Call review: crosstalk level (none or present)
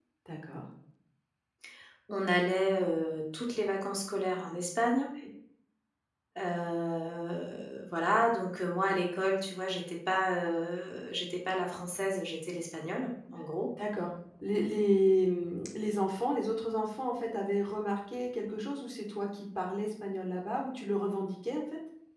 none